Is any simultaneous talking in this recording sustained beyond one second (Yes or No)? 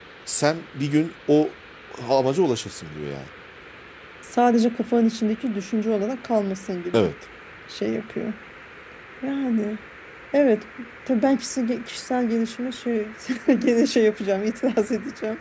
No